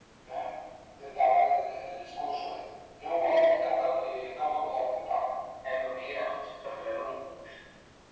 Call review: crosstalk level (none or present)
none